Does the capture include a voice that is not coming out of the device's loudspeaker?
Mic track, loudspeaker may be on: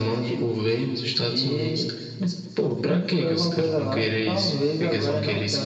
No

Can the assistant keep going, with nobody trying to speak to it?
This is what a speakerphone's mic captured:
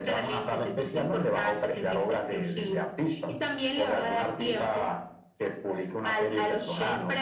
Yes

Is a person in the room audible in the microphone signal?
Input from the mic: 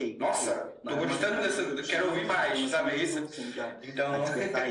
No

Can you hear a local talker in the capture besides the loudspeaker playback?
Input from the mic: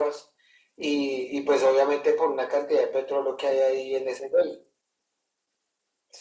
No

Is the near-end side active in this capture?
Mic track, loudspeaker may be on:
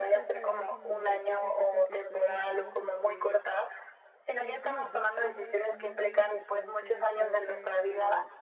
Yes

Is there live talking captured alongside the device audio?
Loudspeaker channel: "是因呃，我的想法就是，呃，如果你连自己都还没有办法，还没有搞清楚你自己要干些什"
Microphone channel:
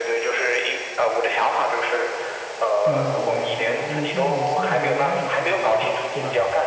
Yes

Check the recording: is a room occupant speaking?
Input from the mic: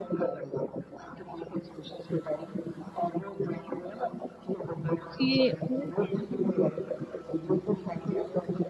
Yes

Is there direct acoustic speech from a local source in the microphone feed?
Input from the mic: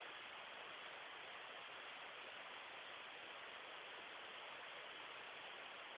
No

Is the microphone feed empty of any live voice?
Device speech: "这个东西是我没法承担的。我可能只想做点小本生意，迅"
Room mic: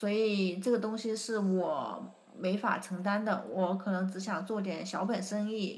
Yes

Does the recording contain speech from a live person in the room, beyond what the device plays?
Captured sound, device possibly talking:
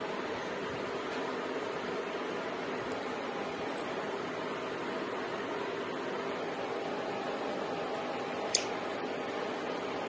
No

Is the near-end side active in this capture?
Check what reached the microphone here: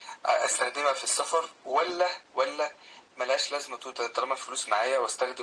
No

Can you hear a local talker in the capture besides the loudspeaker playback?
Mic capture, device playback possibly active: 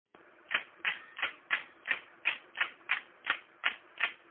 No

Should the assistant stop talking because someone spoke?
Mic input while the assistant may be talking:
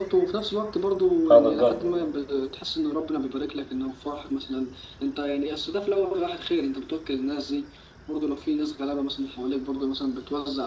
Yes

